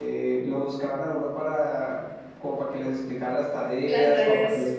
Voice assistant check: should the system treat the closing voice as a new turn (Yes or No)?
No